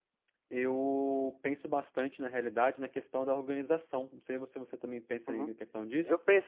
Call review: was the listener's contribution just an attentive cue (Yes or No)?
No